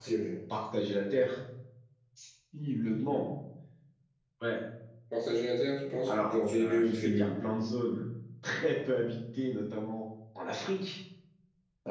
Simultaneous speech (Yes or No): Yes